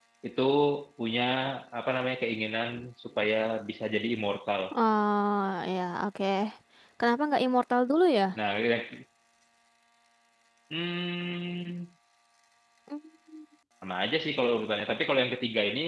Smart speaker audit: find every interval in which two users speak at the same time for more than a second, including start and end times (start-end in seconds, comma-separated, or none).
none